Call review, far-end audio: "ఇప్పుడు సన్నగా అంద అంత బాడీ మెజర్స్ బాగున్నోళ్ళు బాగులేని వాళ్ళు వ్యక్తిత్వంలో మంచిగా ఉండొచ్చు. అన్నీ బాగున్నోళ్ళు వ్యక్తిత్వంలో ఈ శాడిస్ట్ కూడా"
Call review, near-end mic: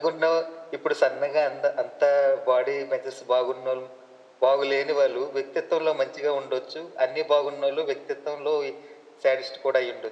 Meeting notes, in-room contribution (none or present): none